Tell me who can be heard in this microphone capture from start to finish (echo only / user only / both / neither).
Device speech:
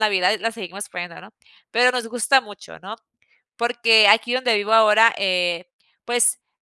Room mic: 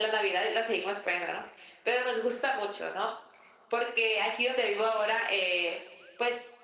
echo only